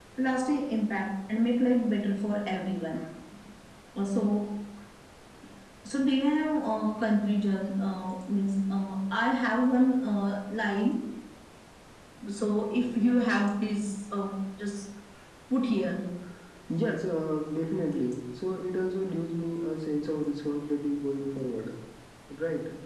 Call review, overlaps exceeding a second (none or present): none